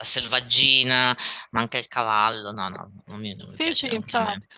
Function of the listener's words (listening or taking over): taking over